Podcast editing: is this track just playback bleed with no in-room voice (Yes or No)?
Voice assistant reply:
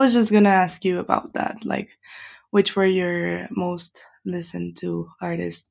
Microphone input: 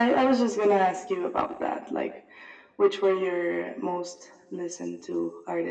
Yes